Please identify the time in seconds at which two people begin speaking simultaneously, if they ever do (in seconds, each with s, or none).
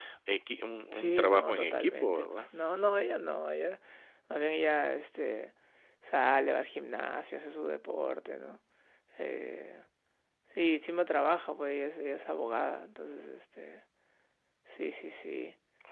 0.9 s